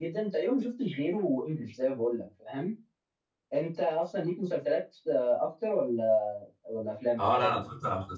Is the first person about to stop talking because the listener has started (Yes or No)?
Yes